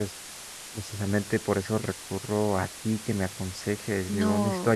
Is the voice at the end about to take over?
Yes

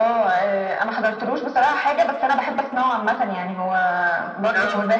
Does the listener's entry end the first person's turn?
No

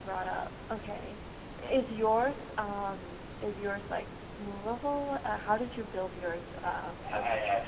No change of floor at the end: No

